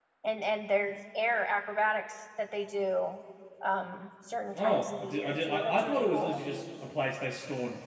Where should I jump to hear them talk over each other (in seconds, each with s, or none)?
4.5 s